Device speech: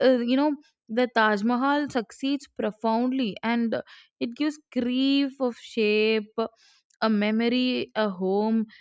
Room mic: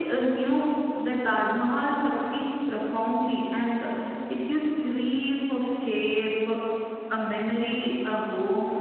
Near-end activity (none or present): none